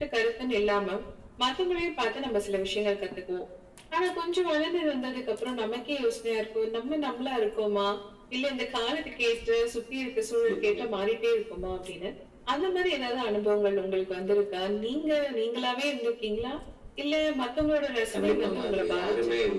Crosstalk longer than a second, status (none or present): present